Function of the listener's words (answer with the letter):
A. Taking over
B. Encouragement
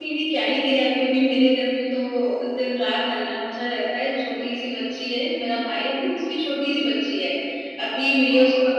B